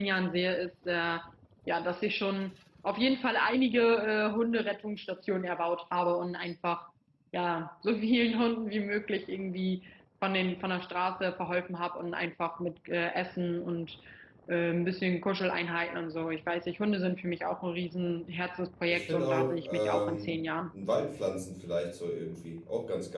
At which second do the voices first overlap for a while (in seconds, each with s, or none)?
18.9 s